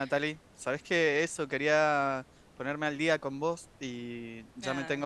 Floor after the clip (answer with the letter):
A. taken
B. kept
B